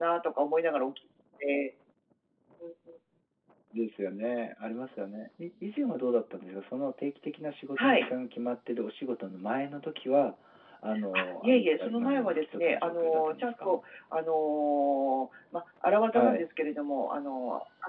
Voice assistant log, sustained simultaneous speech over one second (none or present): present